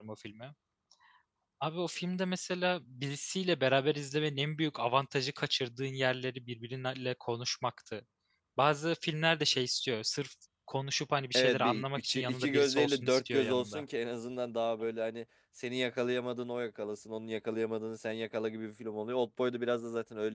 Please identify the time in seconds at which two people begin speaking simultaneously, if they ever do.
11.3 s

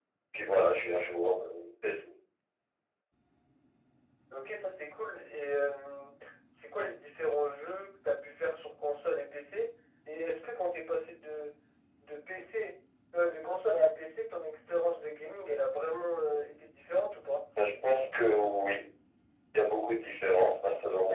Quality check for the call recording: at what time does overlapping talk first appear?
none

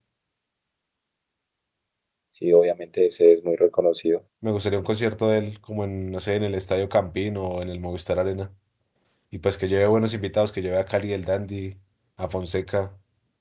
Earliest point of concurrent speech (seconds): none

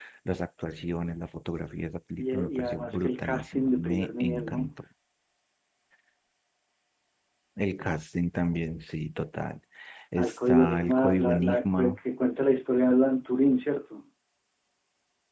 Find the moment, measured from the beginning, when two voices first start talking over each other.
2.2 s

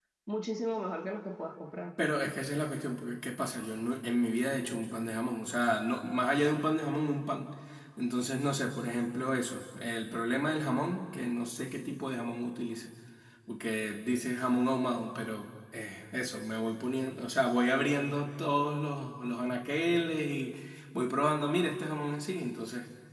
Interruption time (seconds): none

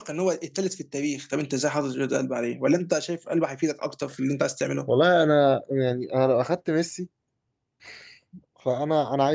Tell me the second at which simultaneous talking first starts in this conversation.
none

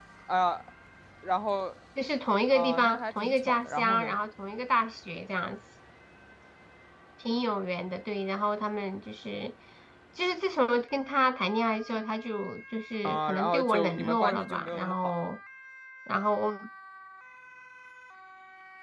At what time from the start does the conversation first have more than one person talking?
2.5 s

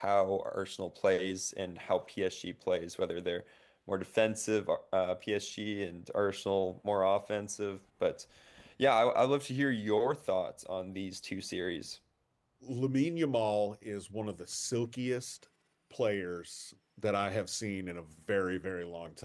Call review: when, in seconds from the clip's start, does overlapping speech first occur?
none

